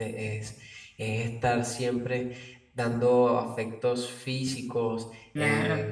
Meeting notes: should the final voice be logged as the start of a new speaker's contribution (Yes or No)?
No